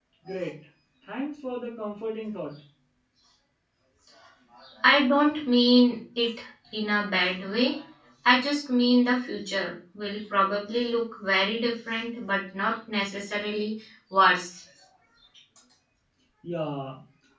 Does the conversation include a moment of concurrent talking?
No

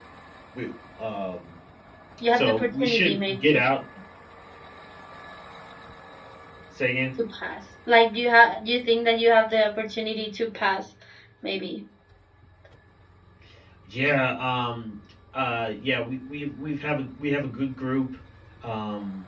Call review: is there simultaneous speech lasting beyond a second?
Yes, from 2.3 s

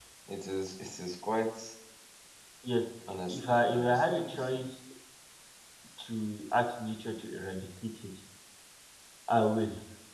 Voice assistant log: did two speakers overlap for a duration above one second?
Yes, from 3.4 s

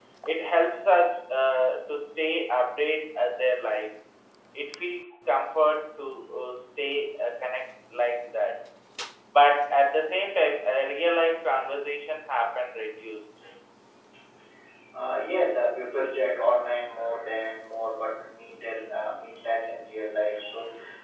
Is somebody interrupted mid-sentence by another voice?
No

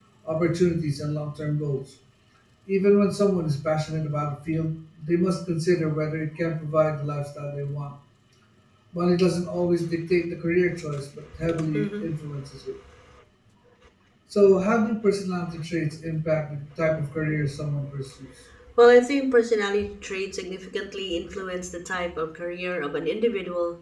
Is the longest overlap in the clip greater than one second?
No

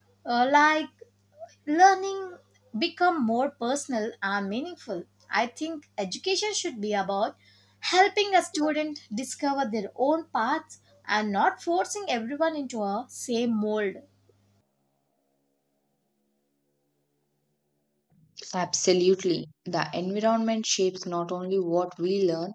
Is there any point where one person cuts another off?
No

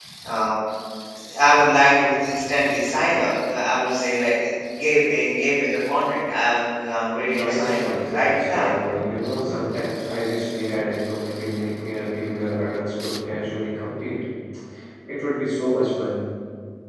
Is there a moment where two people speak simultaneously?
Yes, from 7.3 s

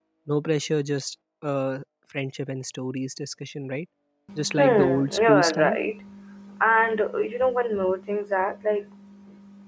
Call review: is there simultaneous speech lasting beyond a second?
Yes, from 4.5 s

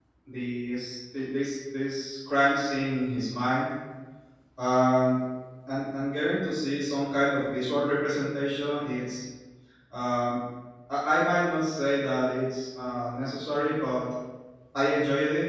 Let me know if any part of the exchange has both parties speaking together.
No

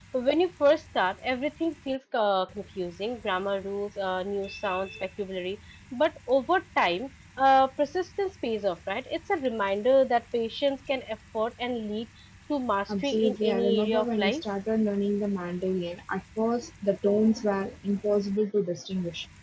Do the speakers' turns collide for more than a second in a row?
Yes, from 12.9 s

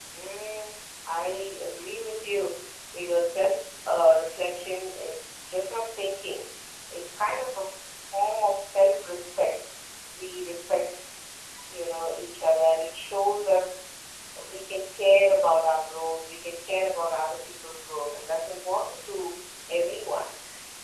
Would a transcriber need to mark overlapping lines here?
No

